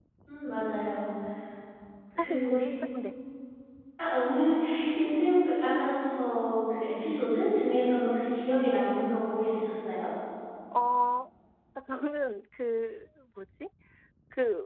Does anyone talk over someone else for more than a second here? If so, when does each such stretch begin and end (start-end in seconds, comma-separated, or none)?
none